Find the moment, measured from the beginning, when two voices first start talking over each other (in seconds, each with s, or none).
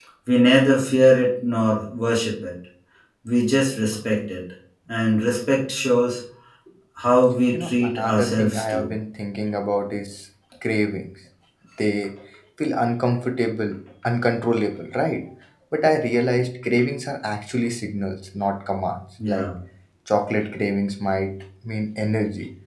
7.5 s